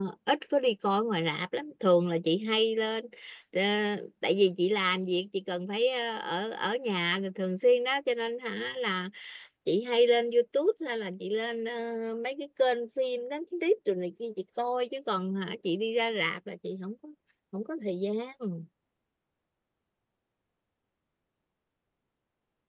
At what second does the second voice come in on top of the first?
none

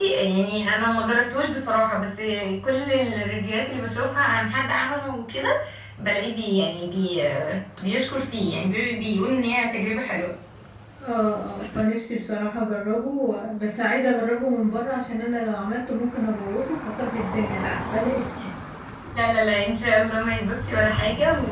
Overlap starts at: none

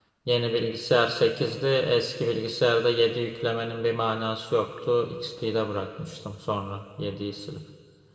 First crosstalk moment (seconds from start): none

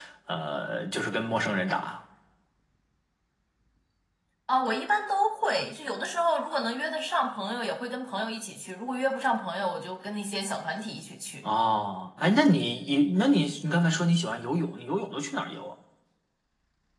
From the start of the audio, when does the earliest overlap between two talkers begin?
none

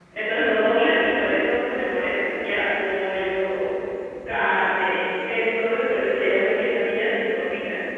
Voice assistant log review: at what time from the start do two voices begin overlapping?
none

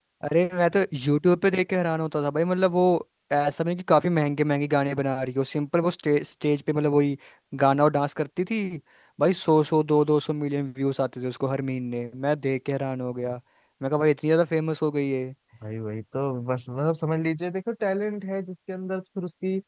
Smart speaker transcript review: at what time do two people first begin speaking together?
none

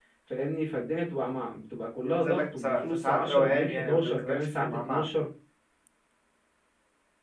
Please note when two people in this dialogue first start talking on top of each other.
2.0 s

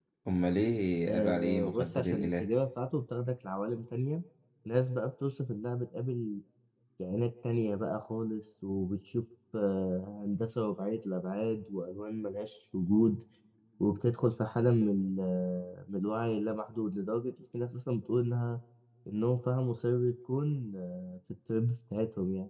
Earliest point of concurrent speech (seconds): 1.1 s

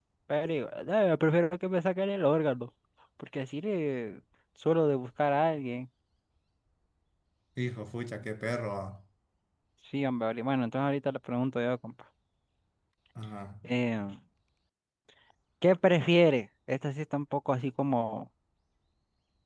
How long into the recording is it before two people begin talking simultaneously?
none

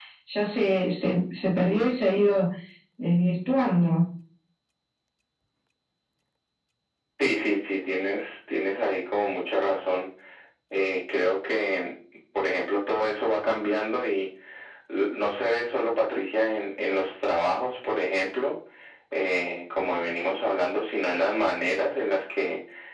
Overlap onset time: none

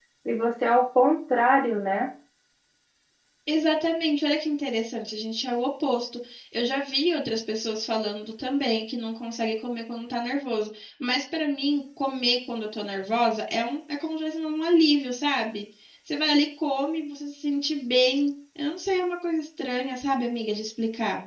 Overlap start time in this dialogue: none

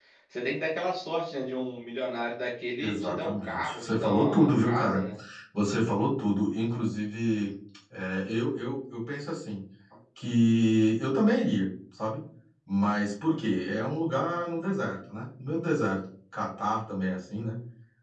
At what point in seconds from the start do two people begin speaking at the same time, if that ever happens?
2.8 s

